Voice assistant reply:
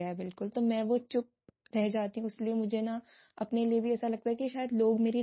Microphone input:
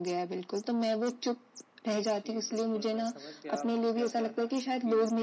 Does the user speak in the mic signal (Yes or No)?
Yes